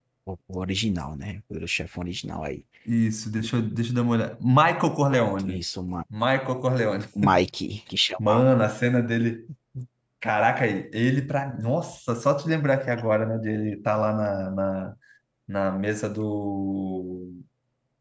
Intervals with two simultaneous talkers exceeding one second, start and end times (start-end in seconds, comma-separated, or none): none